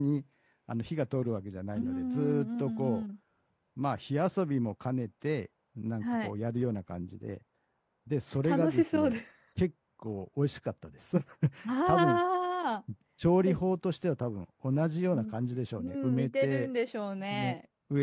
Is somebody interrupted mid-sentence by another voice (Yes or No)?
Yes